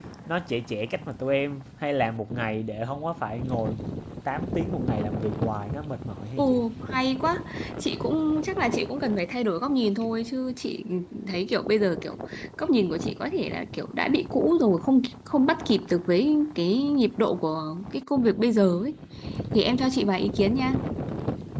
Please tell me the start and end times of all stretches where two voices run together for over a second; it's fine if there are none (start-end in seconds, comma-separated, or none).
none